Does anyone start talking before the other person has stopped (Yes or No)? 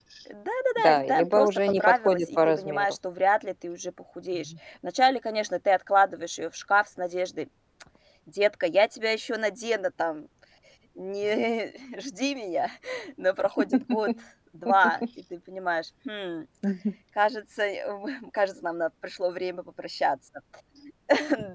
Yes